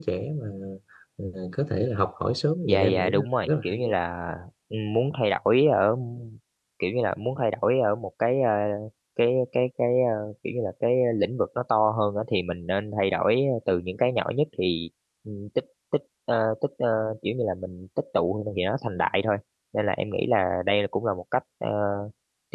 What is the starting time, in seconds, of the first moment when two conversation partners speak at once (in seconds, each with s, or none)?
2.7 s